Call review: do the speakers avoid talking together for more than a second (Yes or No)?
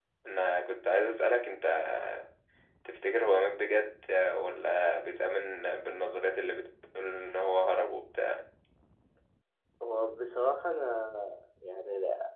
Yes